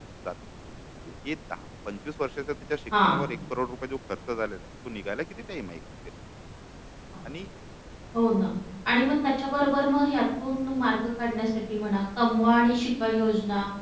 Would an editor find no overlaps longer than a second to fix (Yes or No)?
Yes